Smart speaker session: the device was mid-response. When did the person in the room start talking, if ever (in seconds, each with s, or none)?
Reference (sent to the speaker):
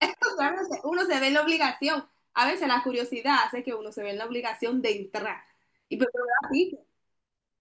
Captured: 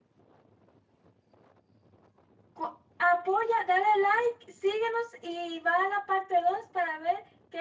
2.5 s